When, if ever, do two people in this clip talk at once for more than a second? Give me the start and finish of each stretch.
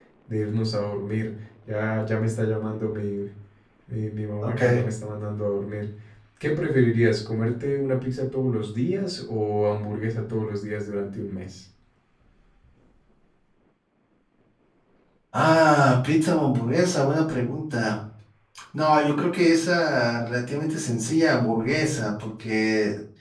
none

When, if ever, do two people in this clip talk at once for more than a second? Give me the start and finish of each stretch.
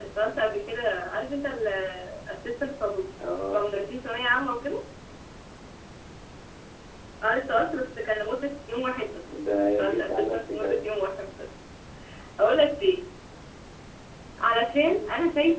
9.3-10.8

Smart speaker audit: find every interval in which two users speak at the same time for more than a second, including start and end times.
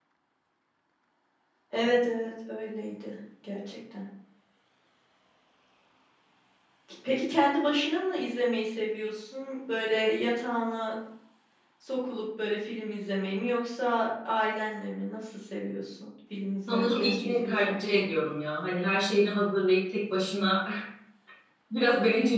16.7-18.1

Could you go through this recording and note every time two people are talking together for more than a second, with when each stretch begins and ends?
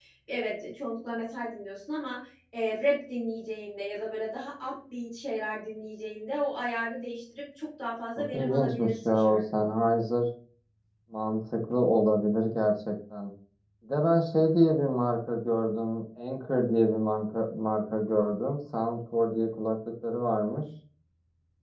8.2-9.7

